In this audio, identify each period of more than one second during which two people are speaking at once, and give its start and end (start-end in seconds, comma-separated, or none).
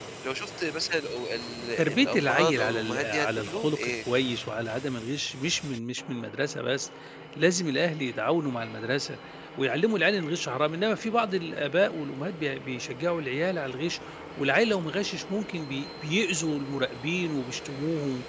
1.8-4.0